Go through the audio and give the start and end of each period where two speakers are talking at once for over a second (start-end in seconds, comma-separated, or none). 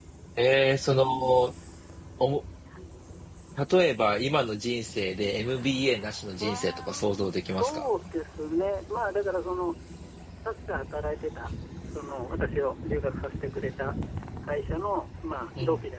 6.3-7.9